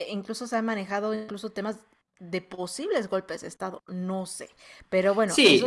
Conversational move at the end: taking over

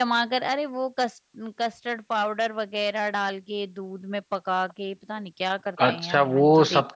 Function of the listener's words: taking over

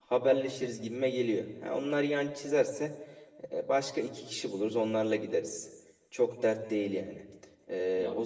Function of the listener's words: listening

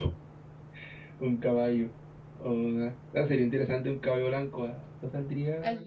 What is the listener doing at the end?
taking over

